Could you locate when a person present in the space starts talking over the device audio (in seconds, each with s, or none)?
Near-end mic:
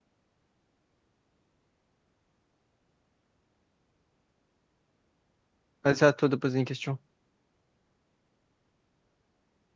5.8 s